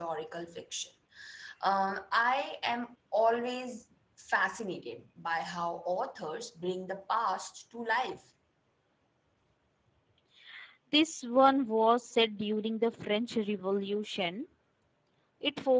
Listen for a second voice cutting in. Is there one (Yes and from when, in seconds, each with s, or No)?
No